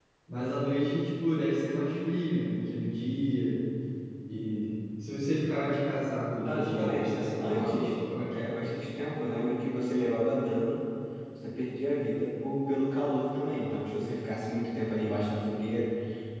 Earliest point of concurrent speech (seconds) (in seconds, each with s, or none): 6.4 s